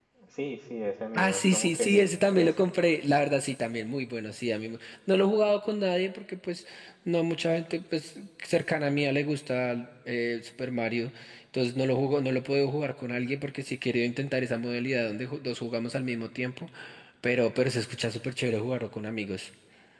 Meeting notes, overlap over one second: present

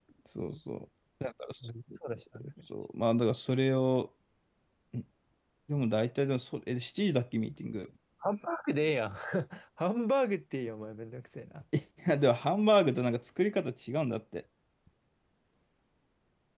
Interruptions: none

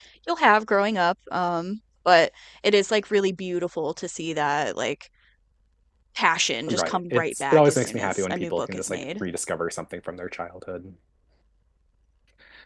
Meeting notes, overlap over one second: present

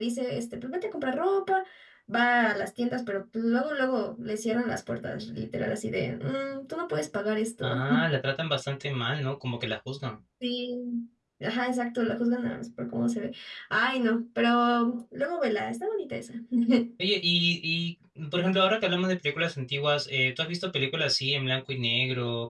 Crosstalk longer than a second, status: none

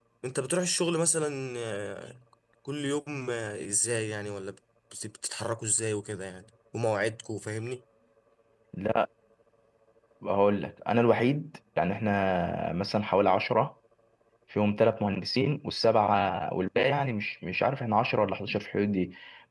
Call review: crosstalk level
none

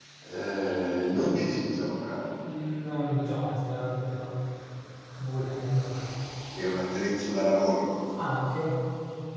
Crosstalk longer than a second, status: none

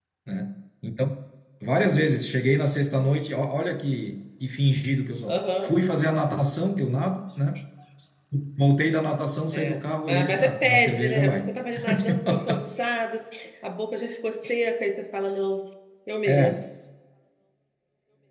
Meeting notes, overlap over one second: present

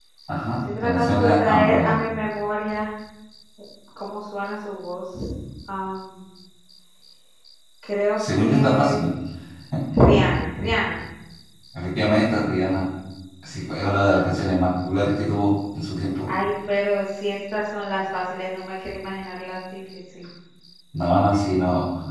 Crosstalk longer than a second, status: present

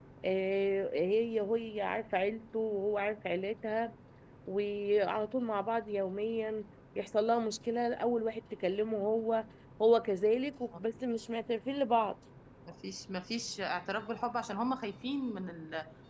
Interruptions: none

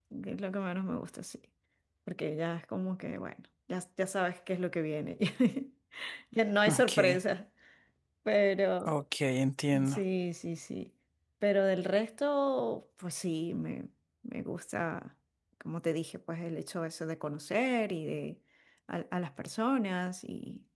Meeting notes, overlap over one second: none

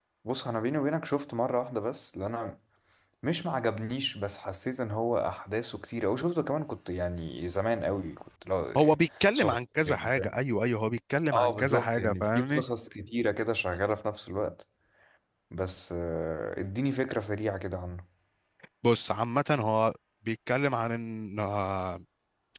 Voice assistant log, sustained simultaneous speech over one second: present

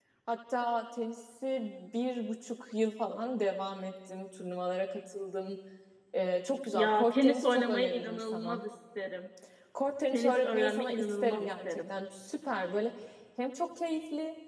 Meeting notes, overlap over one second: present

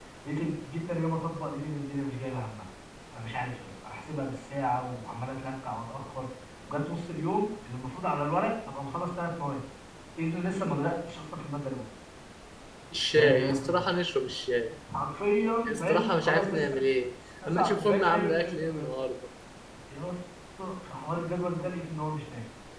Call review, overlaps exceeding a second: present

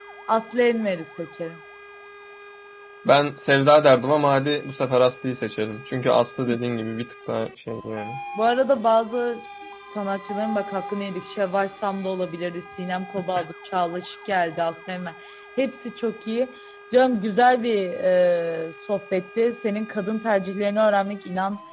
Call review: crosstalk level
none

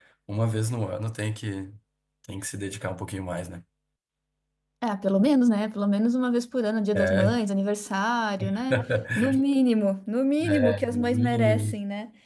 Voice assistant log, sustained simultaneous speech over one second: present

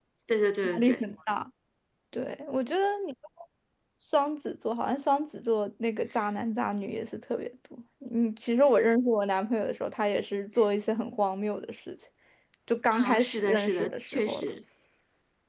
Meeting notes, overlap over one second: present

